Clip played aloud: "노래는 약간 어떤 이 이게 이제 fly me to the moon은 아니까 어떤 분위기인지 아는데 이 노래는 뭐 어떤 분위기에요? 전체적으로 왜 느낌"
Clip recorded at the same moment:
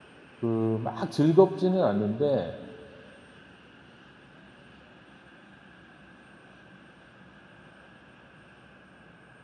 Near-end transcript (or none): 그 막 즐겁지는 않은데